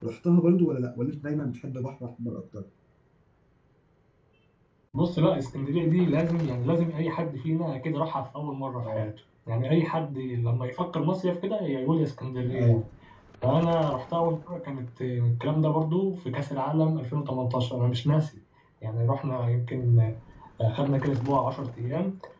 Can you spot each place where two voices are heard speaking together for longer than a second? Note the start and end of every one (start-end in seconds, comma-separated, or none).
none